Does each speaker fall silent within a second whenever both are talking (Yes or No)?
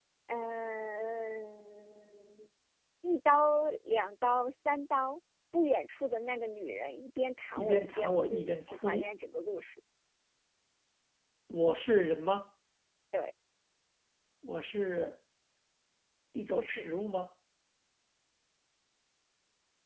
No